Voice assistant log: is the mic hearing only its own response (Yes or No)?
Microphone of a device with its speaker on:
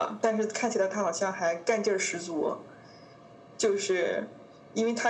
Yes